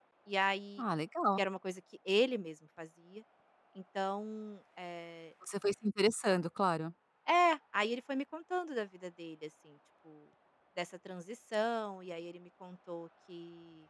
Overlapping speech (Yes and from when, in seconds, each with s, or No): No